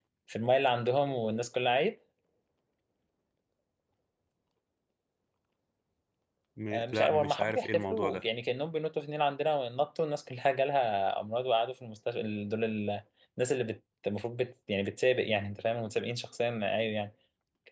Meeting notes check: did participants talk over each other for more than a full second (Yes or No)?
Yes